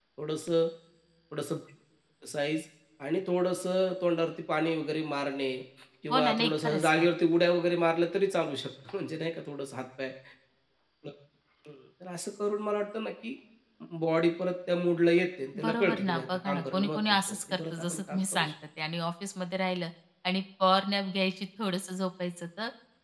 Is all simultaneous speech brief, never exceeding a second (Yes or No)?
No